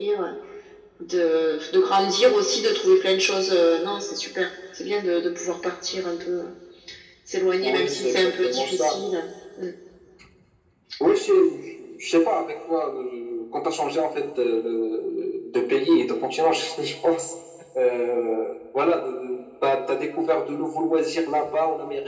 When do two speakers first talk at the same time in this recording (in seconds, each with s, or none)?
7.6 s